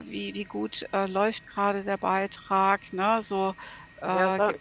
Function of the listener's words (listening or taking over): taking over